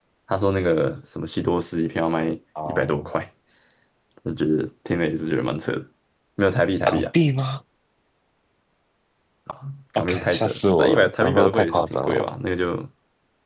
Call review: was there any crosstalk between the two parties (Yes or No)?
Yes